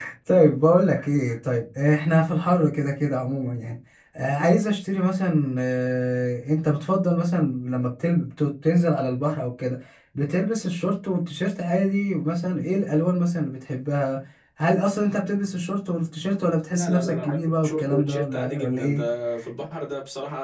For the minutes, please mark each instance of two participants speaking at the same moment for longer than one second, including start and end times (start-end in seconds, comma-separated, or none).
16.7-19.0